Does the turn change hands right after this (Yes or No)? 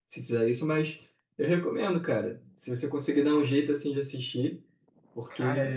No